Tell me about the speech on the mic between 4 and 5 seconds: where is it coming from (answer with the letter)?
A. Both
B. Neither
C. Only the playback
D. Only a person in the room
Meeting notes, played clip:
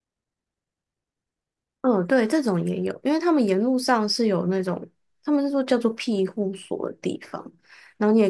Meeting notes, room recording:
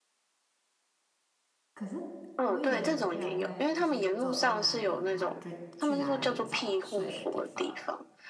A